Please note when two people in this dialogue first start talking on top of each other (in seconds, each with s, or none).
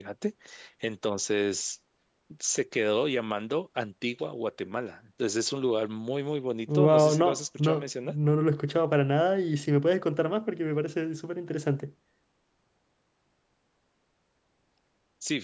6.7 s